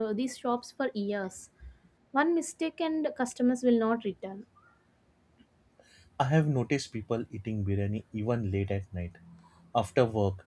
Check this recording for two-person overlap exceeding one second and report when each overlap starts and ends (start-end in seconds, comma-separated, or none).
none